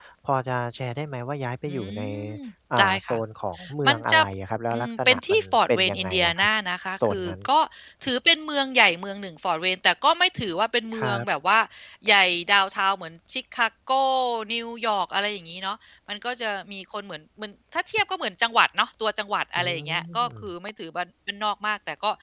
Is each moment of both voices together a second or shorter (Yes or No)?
No